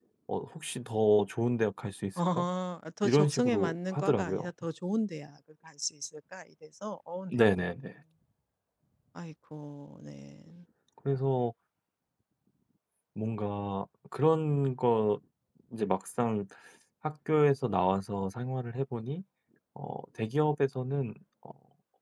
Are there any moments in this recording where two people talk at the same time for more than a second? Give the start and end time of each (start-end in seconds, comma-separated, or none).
3.0-4.5